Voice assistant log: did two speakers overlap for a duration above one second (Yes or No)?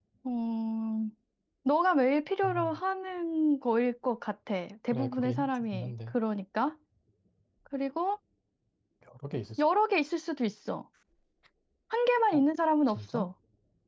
Yes